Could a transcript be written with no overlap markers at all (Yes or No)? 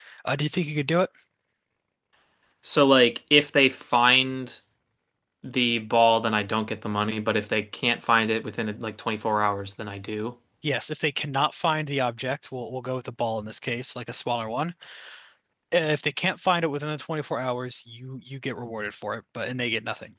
Yes